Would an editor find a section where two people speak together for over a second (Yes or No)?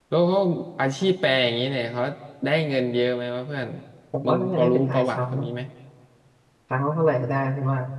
Yes